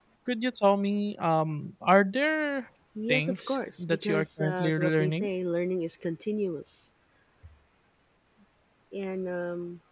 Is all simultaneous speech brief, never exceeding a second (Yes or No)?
No